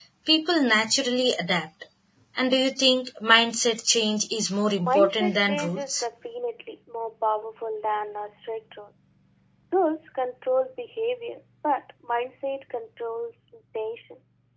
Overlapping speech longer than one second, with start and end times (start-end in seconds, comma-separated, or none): 4.8-6.0